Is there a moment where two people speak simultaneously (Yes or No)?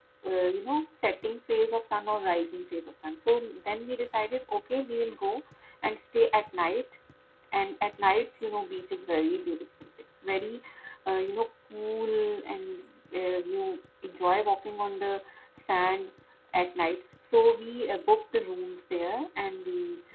No